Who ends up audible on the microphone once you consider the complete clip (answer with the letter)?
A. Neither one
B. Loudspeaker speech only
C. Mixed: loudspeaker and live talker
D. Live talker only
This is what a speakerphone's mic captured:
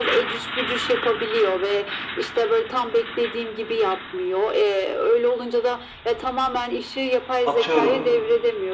C